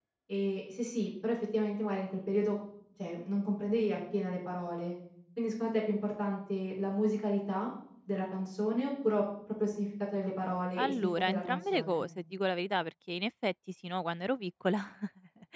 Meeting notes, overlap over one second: present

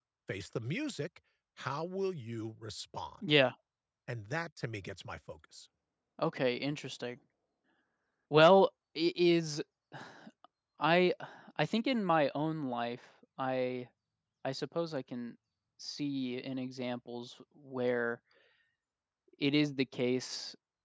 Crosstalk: none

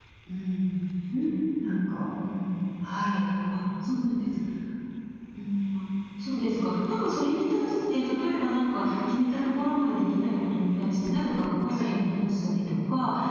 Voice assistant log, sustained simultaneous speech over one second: none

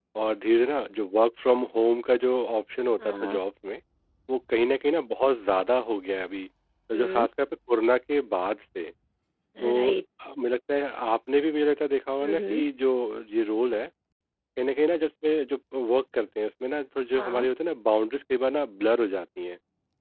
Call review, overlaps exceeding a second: none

